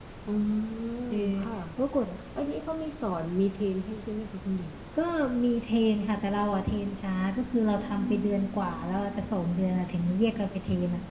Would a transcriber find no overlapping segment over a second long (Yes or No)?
Yes